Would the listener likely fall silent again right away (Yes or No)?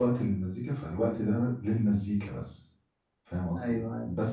No